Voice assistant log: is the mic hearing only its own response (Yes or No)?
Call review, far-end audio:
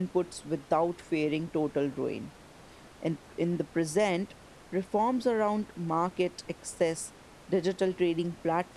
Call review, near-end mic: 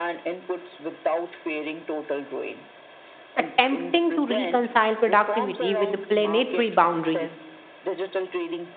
No